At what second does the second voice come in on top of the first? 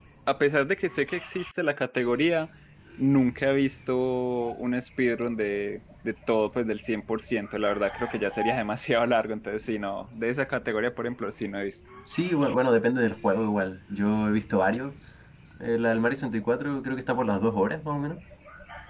none

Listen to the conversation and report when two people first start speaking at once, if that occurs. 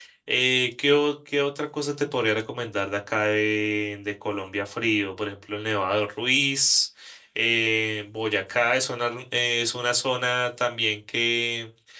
none

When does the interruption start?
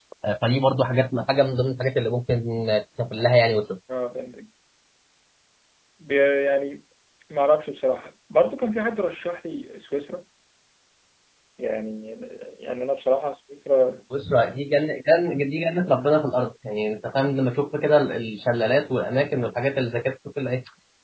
none

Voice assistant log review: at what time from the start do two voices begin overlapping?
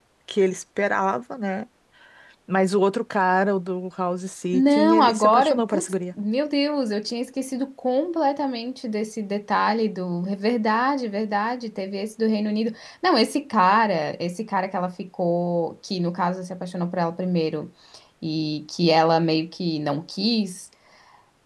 4.5 s

